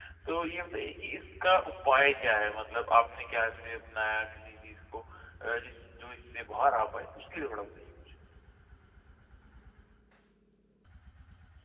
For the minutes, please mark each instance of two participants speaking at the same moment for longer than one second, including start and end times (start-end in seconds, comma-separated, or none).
none